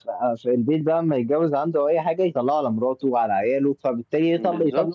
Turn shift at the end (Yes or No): No